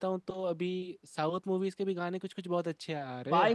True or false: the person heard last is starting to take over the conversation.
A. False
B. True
B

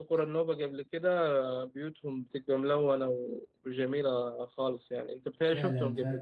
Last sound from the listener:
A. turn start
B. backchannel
A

